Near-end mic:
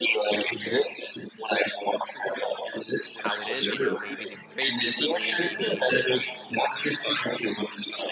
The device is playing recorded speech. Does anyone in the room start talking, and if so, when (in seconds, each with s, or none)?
3.1 s